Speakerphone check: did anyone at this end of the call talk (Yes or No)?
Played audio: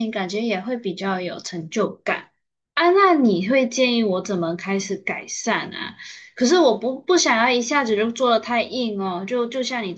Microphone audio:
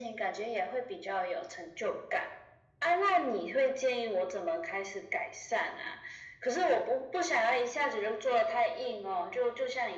No